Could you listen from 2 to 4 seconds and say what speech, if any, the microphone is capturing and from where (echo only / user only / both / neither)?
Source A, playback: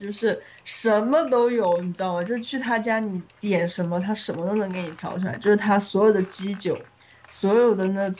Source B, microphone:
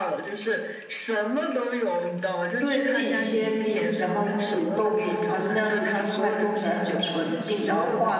both